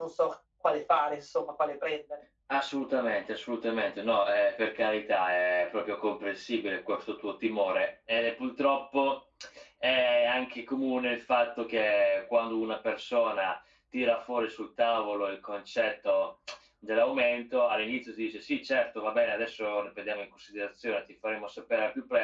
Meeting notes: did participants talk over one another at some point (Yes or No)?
No